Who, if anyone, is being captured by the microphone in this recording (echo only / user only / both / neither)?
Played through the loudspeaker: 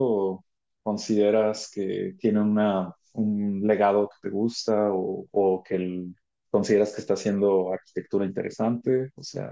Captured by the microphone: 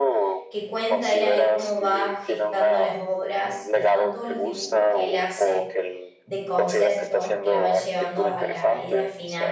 both